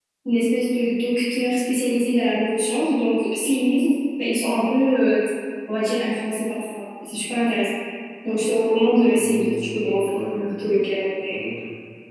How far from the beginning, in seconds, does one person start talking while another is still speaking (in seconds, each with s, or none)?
9.2 s